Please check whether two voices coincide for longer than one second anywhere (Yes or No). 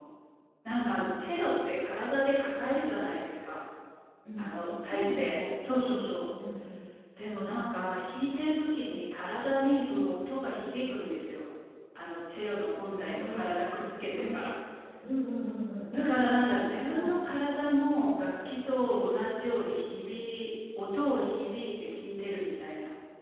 Yes